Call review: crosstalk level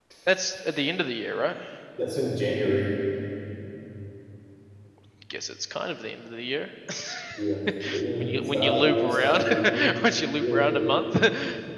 present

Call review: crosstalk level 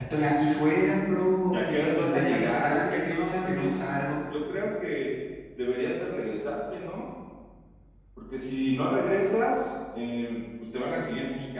present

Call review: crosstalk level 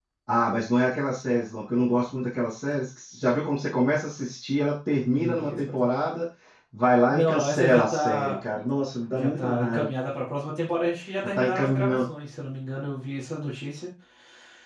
present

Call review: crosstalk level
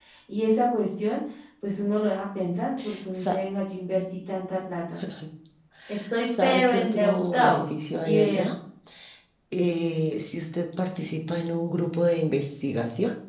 present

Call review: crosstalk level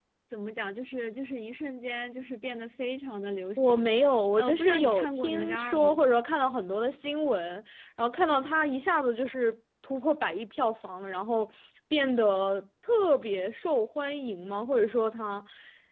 present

